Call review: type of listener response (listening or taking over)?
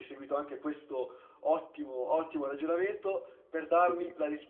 listening